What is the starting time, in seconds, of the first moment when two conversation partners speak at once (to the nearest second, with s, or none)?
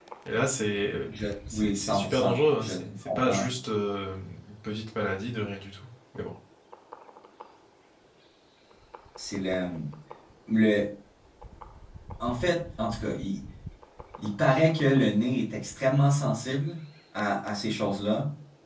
2 s